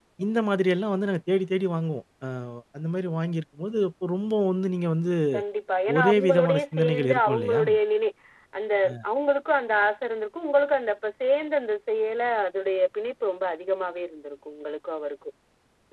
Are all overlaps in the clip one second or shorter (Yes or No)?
No